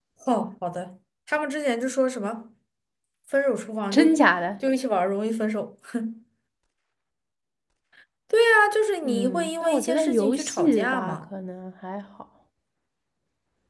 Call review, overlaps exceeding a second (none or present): present